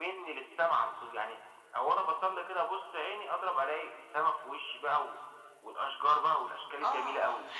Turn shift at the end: Yes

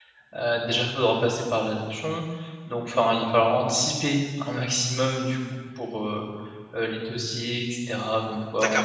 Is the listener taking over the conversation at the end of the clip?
Yes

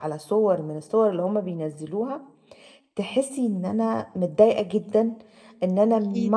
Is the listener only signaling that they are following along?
Yes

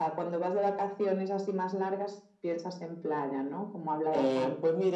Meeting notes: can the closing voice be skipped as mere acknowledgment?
No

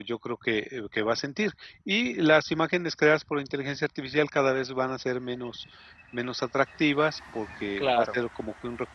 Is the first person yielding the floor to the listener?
No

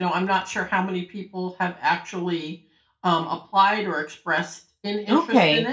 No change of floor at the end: No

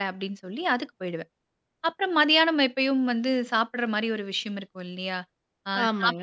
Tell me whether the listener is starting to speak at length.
No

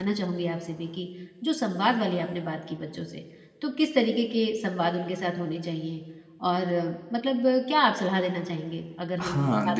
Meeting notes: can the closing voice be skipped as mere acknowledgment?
No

